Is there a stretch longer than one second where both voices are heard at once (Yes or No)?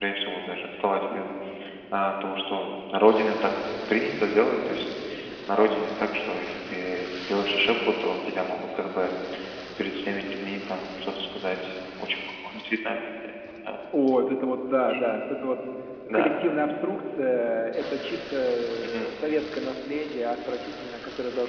No